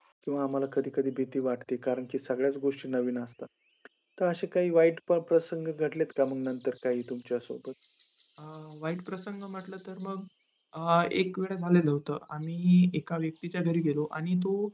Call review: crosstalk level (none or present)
none